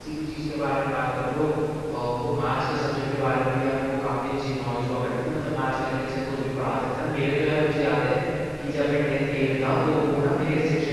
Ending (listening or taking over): listening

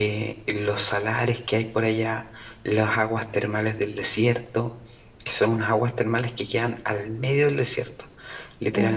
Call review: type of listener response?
taking over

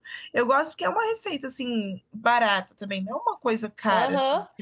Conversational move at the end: taking over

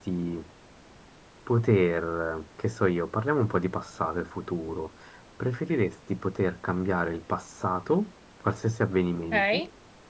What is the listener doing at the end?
listening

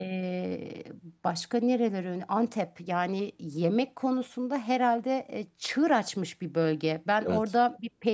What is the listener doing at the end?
listening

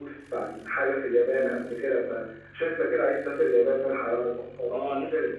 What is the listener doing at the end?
taking over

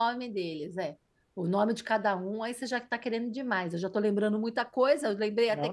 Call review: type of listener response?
taking over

